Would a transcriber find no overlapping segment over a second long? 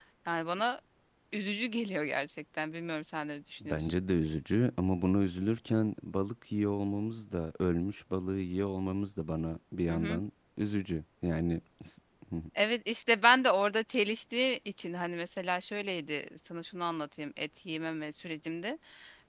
Yes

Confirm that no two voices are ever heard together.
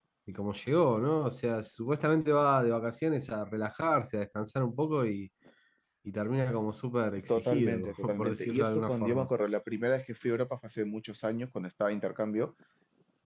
No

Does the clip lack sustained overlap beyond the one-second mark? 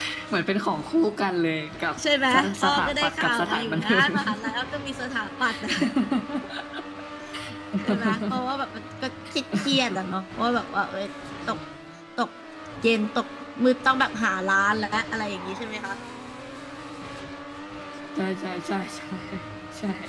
No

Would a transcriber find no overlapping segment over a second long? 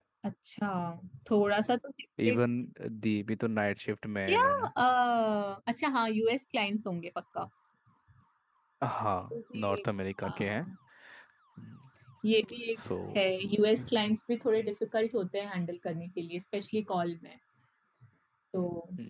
Yes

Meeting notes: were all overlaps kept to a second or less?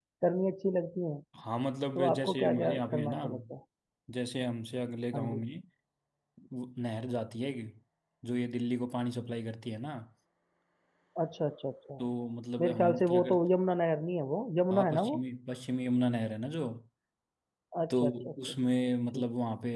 No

